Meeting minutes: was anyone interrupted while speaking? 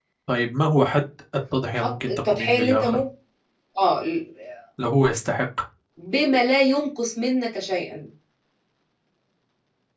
Yes, from 1.8 s

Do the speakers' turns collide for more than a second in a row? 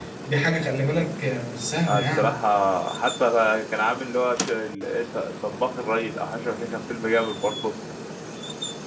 No

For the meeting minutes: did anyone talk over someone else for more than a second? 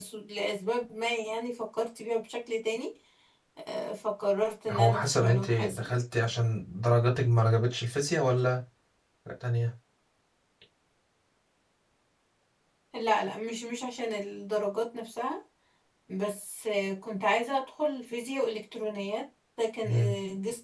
Yes, from 4.7 s

